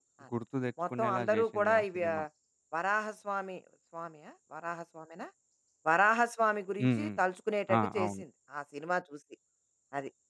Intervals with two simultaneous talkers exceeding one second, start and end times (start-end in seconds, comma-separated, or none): 1.0-2.2